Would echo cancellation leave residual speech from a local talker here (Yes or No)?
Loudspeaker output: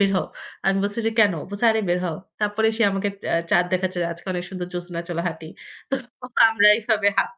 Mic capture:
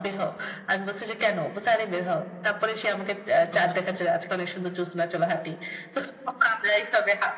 Yes